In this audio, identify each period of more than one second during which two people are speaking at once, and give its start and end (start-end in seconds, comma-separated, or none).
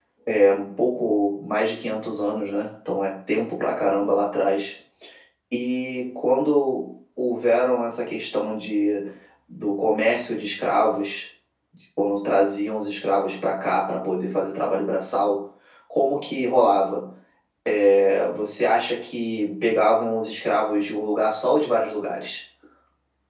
none